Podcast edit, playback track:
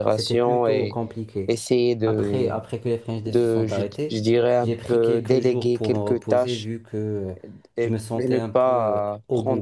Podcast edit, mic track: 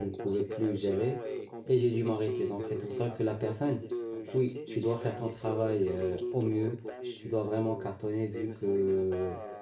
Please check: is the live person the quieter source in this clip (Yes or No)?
No